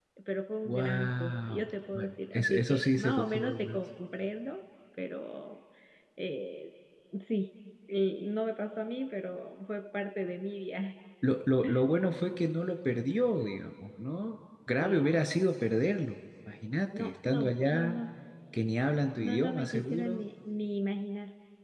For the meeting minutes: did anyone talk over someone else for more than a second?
Yes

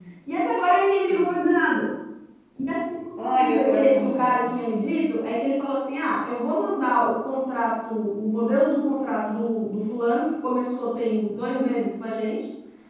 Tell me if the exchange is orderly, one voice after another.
No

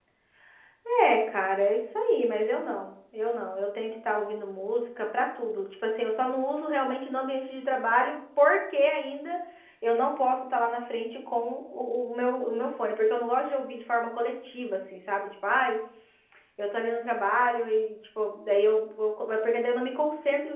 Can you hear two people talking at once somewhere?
No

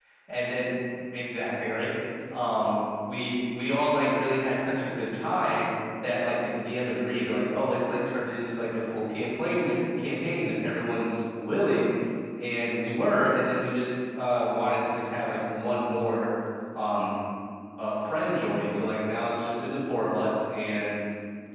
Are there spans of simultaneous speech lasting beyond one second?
No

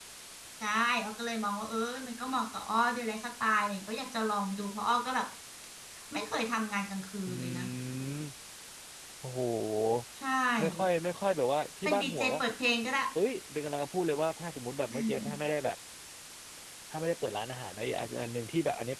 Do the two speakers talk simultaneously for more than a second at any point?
No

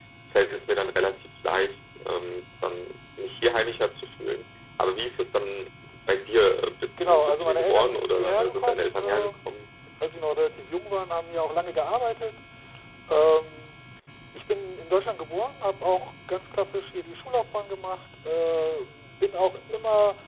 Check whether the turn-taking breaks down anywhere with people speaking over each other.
Yes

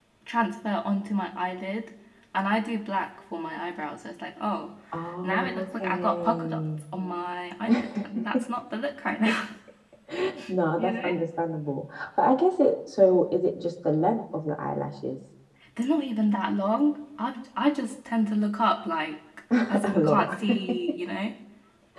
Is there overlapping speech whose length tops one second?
Yes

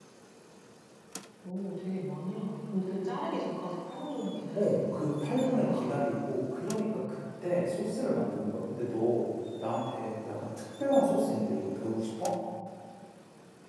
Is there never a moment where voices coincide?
No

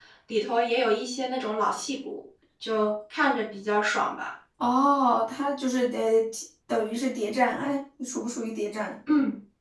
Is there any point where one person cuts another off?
No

